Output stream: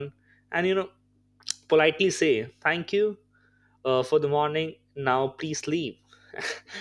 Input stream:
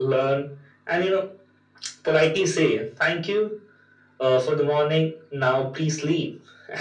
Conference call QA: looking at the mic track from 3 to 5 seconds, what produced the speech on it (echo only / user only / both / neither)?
echo only